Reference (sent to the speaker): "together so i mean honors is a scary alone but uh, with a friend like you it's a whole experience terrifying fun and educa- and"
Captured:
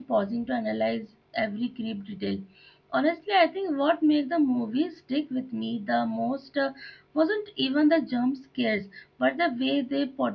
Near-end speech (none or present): present